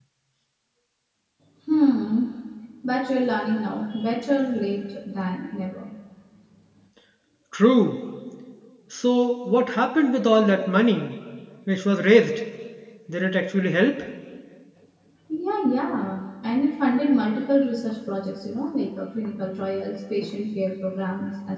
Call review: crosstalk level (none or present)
none